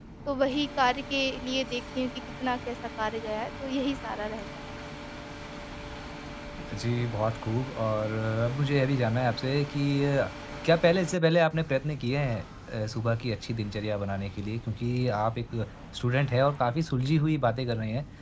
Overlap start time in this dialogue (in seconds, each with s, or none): none